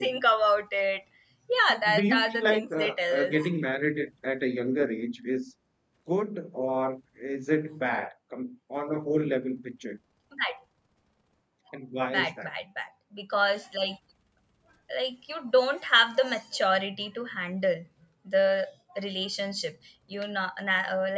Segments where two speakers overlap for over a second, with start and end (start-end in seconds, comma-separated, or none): 1.7-3.4